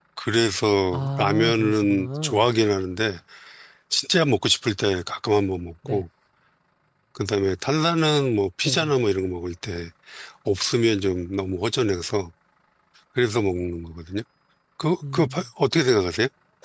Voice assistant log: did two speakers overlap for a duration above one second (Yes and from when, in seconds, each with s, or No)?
Yes, from 0.9 s